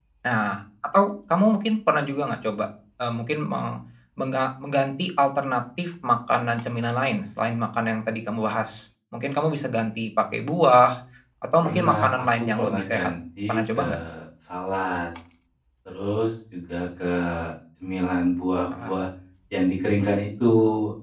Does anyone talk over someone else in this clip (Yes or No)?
Yes